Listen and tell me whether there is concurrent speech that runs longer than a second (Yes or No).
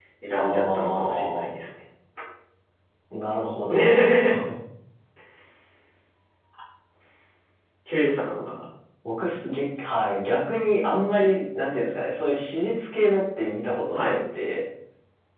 Yes